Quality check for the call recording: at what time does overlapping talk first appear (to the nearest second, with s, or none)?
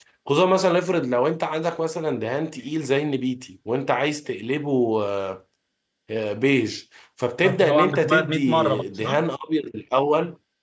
7 s